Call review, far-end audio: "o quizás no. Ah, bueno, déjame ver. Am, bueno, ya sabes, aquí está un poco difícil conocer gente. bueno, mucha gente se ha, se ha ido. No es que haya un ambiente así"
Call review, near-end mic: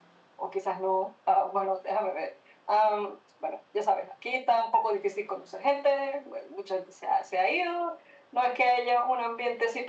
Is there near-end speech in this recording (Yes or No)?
No